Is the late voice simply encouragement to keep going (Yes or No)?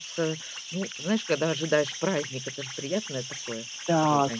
No